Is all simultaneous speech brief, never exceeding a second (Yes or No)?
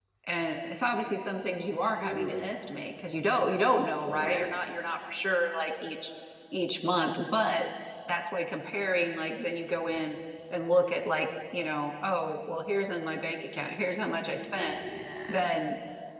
Yes